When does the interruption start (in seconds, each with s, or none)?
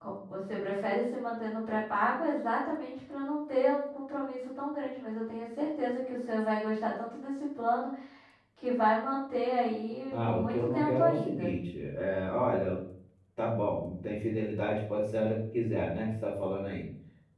10.1 s